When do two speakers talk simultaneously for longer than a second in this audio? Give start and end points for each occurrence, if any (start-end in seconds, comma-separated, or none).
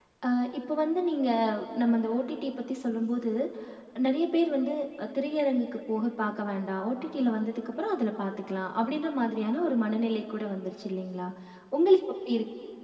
none